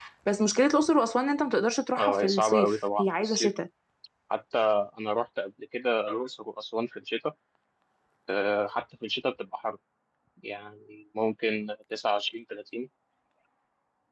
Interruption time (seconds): 2.0 s

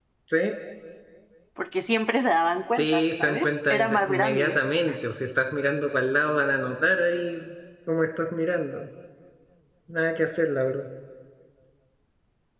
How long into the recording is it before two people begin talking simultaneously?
2.8 s

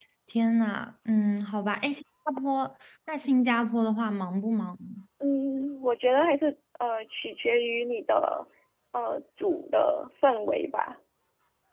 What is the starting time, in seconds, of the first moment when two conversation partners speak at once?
none

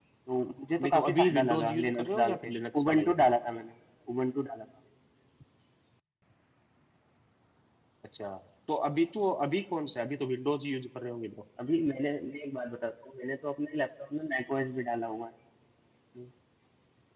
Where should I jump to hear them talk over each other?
0.8 s

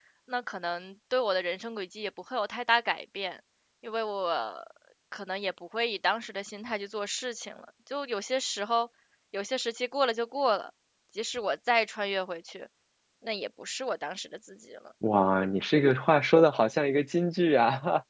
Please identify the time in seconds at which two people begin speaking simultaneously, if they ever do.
none

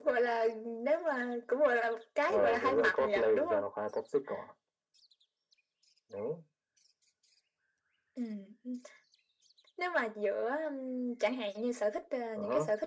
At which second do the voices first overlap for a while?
2.3 s

